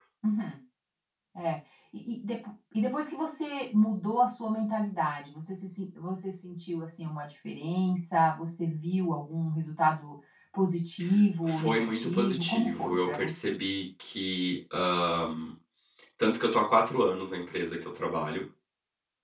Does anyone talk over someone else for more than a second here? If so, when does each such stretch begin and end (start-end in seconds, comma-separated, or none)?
11.5-13.6